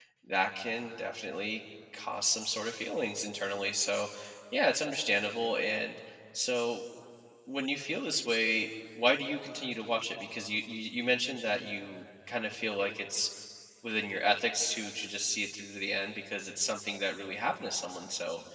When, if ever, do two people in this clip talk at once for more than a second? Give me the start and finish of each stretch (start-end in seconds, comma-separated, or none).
none